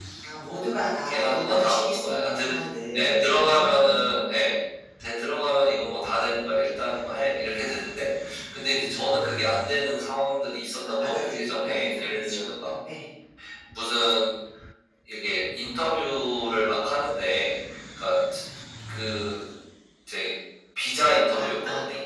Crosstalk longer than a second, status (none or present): present